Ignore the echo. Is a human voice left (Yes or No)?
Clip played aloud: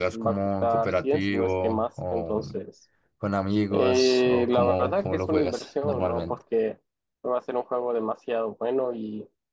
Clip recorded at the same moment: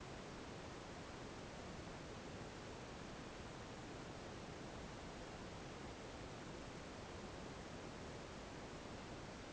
No